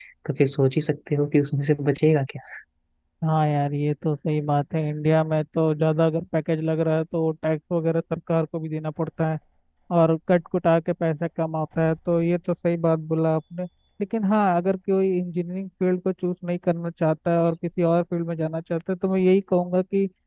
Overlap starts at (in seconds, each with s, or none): none